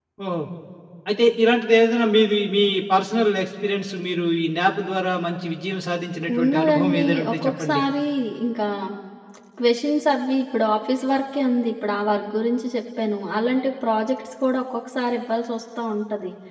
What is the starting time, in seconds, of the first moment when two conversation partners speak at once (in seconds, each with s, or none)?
6.3 s